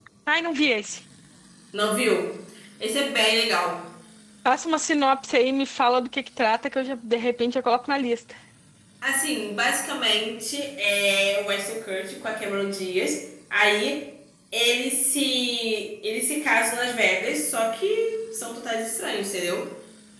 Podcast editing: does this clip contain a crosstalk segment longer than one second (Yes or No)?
No